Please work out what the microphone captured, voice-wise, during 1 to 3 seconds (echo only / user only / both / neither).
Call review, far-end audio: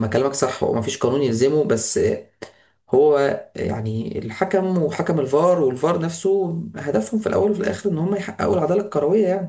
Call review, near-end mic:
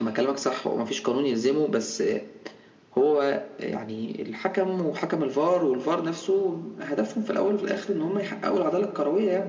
echo only